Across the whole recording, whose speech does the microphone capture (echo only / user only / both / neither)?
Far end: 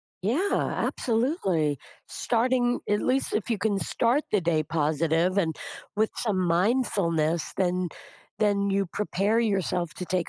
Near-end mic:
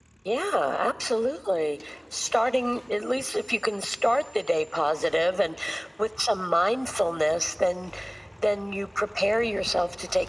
echo only